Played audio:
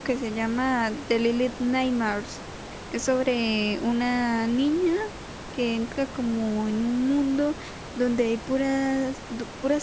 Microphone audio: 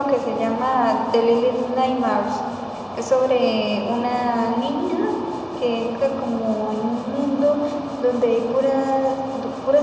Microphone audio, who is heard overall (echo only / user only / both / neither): echo only